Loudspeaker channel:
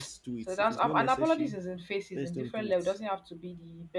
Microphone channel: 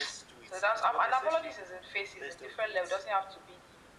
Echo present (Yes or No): Yes